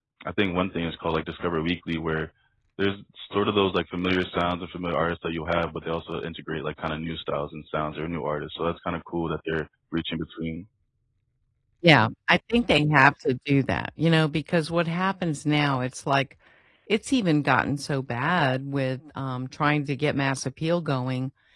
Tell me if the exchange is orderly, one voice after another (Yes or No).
Yes